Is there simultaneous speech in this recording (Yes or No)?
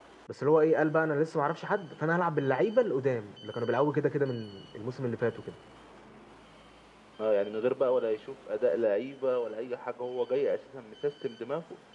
No